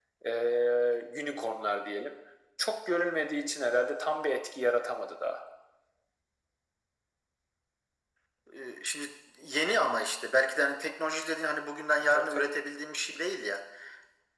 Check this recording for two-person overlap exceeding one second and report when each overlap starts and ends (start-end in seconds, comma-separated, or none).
none